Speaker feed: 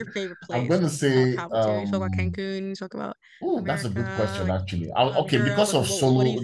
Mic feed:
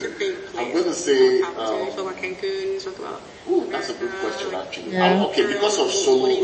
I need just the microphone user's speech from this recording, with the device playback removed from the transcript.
Yeah.

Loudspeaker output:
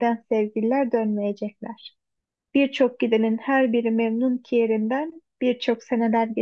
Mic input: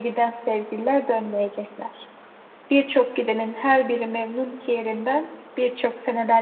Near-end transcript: none

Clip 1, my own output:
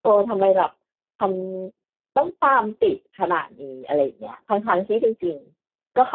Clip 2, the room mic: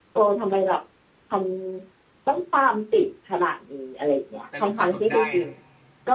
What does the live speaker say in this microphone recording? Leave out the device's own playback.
แต่หลบกระสุนได้นะ

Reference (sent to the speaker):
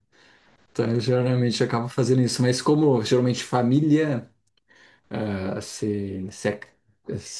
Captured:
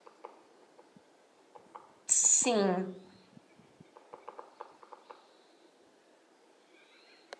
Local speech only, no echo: Sim.

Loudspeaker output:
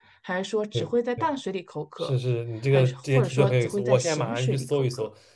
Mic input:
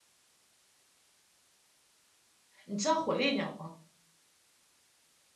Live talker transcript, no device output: 你知道火烈鸟吗？

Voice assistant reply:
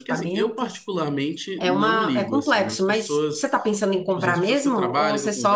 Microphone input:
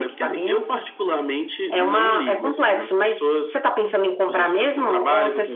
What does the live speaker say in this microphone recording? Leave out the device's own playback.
none

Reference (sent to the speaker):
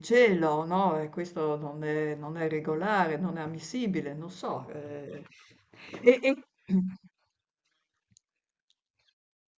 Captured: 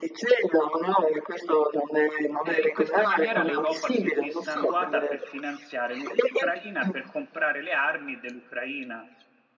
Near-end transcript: eh, in questa maniera l'Europa si è dissanguata per finanziare l'Ucraina, per comprare le armi dell'Ucraina.

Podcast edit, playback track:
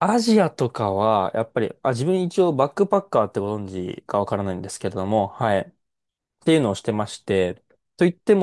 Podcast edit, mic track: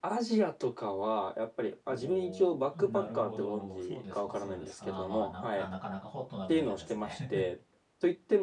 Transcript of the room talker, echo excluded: おおなるほど。そうですか、そうですか。まあ、な、あ、なかなかホットな分野ですね。

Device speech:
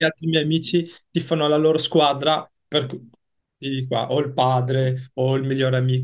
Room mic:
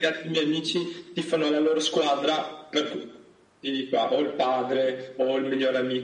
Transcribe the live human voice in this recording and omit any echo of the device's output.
none

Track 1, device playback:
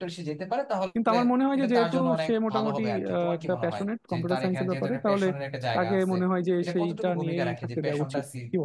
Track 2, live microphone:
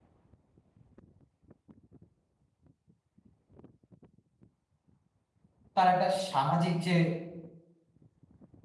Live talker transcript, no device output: তার একটা সামাজিক যে

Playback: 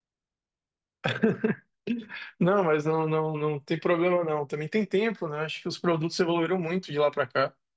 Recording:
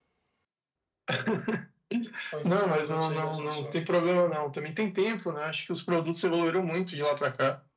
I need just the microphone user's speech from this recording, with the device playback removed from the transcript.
com esses produtos aí da Samsung.

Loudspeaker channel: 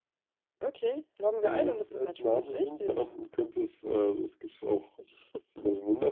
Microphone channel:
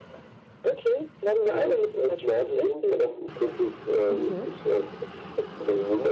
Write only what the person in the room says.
Okay,

